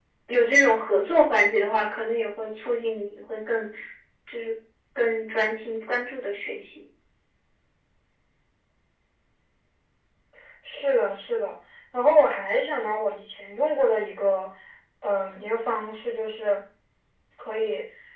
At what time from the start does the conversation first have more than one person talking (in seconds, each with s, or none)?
none